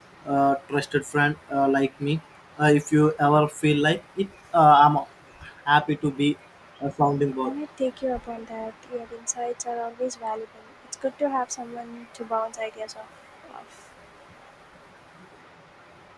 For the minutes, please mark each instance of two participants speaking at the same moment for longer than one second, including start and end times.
none

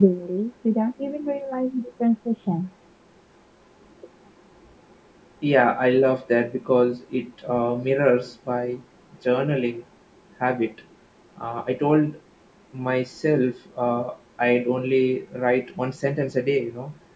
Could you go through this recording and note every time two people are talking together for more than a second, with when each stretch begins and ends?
none

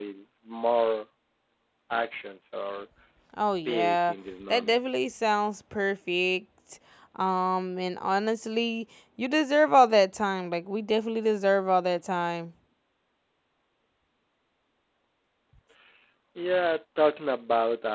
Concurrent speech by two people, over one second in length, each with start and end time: none

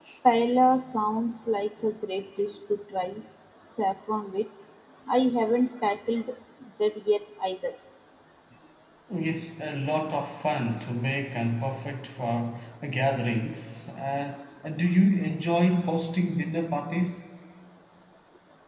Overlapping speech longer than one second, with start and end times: none

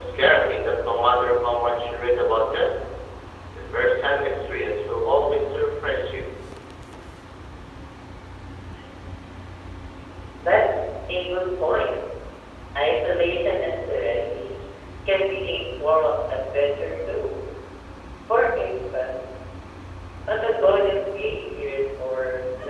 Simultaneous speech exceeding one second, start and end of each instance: none

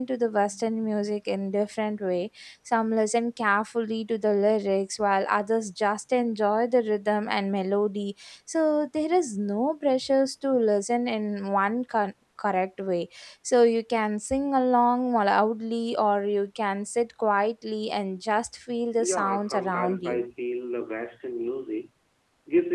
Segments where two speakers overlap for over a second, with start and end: 19.0-20.2

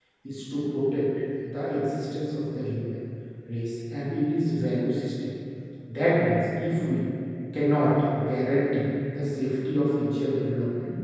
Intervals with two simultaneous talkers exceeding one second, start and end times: none

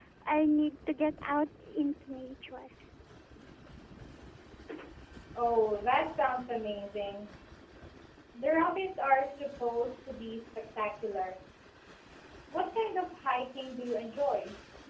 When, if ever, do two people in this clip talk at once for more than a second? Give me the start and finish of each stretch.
none

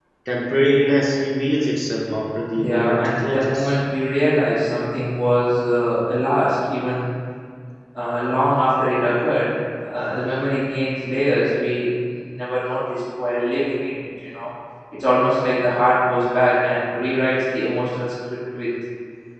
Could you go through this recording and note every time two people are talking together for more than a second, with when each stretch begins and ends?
2.5-3.8

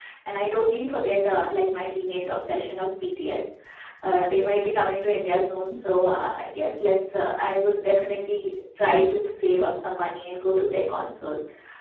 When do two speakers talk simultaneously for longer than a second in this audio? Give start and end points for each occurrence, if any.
none

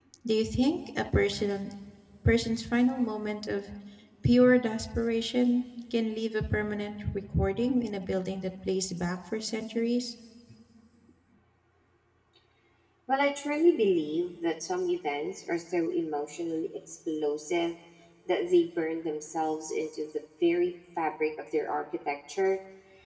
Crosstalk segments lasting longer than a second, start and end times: none

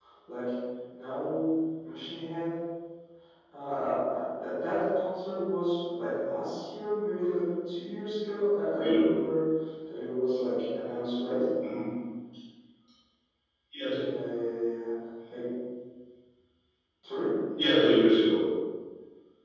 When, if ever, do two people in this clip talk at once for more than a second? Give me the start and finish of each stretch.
none

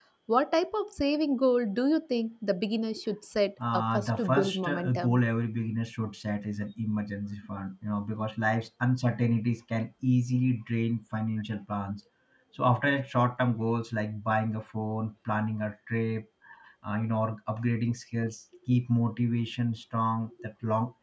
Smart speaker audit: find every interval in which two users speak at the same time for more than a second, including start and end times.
3.7-5.2

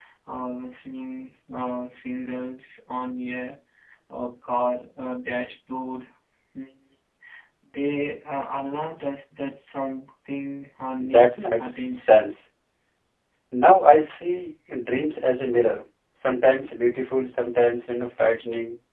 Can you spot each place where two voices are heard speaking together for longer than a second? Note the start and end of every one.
11.0-12.3

